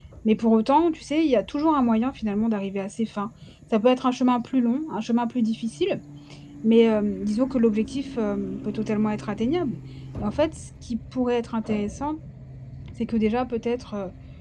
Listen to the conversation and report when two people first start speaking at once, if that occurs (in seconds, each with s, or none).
none